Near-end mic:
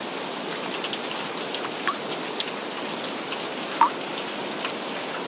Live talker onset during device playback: none

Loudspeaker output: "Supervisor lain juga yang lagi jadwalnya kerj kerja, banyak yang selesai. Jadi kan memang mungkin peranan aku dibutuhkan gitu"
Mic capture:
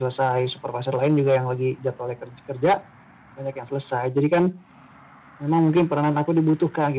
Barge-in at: none

